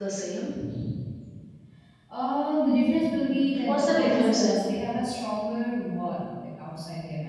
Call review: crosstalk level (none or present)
present